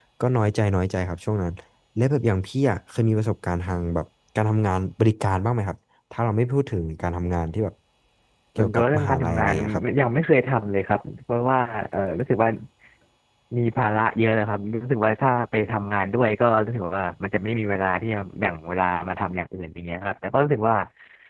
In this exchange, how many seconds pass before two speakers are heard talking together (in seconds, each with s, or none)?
8.6 s